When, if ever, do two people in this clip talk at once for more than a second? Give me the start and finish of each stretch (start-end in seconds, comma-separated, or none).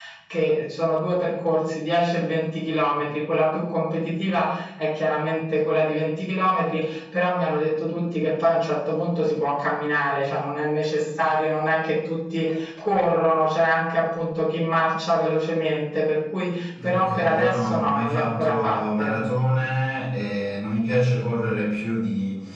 16.9-19.1